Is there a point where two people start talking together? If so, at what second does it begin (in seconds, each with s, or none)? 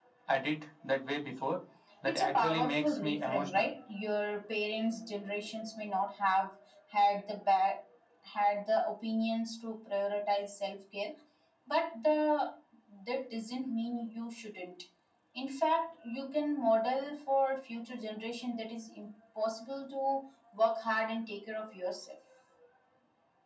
2.0 s